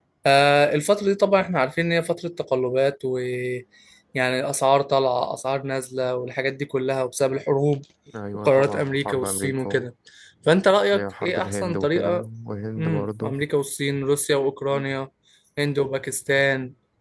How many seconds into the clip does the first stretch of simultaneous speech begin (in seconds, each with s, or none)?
8.4 s